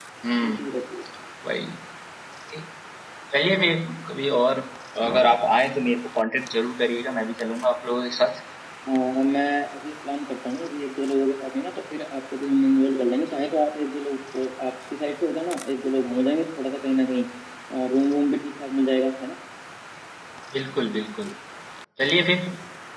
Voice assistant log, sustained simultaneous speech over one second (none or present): none